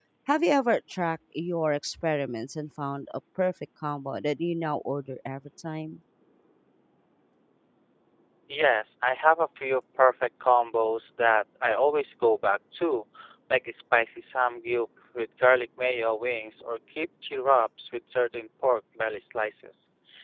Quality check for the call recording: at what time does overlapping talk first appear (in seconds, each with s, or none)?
none